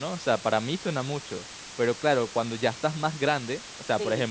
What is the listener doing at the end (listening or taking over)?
listening